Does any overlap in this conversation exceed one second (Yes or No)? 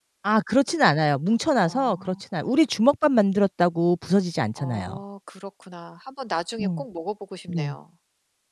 No